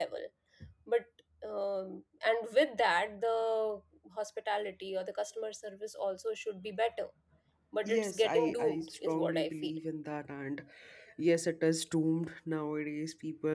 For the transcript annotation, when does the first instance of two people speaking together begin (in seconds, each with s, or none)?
7.8 s